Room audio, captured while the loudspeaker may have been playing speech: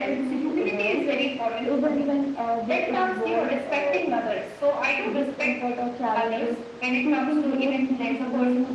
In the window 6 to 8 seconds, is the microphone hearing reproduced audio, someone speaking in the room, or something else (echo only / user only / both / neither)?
echo only